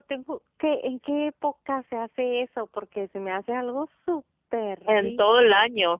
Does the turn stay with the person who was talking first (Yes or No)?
No